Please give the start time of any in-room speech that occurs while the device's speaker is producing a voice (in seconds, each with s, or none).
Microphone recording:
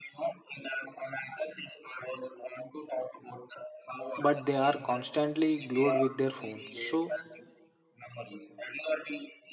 4.2 s